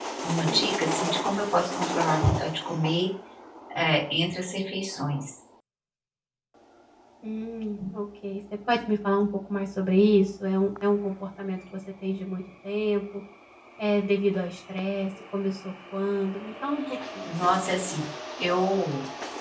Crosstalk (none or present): none